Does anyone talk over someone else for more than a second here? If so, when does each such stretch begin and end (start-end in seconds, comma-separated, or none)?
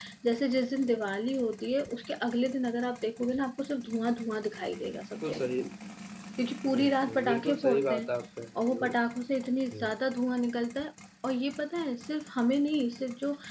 6.7-8.1